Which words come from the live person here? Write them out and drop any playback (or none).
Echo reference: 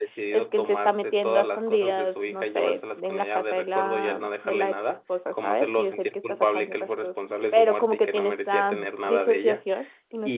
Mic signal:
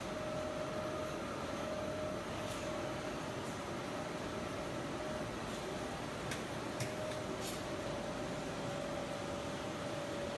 none